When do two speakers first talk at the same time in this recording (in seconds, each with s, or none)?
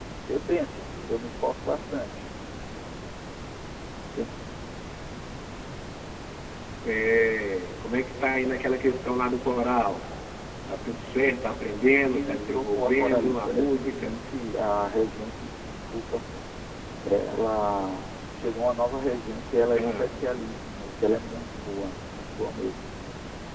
11.9 s